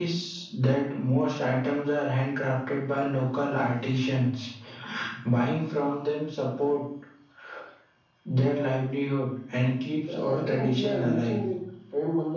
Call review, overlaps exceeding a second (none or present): present